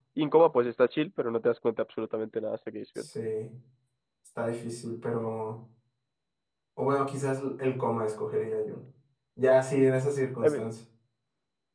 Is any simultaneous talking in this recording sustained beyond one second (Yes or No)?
No